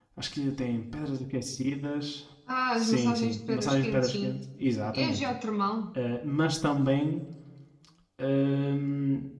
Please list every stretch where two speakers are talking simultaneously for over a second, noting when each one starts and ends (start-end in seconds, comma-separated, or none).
2.8-4.4